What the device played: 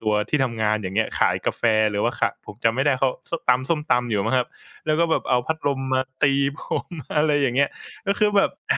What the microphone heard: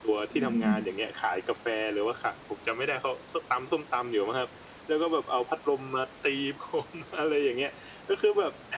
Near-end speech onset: 0 s

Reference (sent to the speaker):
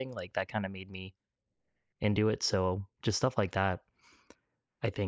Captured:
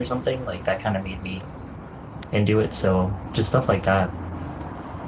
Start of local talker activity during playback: none

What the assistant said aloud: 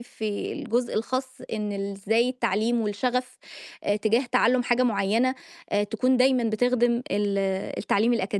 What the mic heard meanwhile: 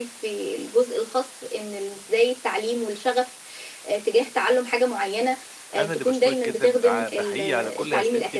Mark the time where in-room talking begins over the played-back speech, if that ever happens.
6 s

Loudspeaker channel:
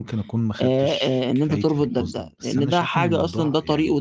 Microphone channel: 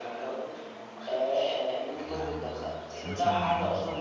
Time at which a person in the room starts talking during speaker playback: 2 s

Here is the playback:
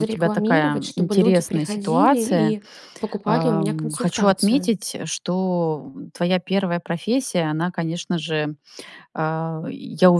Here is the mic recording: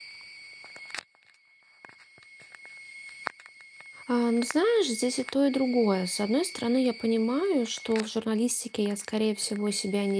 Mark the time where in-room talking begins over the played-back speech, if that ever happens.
4 s

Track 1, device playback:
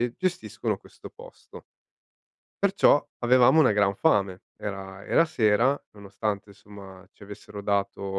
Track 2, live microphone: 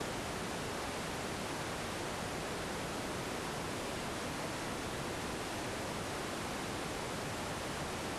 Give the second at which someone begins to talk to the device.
none

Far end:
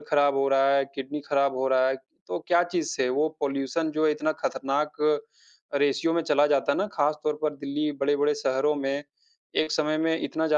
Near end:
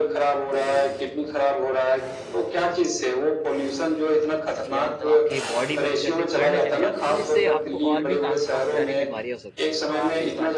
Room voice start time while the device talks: 5 s

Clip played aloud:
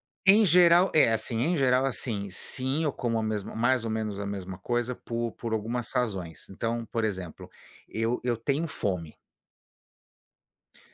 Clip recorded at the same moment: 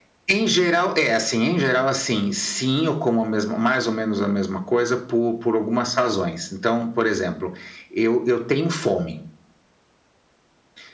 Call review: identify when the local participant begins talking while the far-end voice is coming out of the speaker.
none

